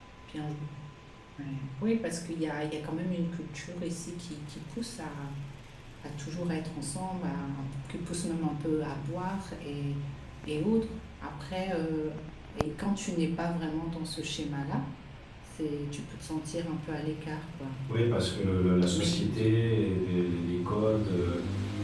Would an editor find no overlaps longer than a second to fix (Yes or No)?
Yes